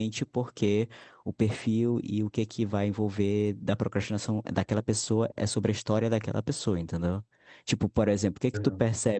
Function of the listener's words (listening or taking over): listening